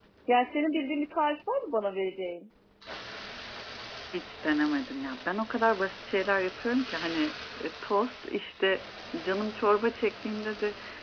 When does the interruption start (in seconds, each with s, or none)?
none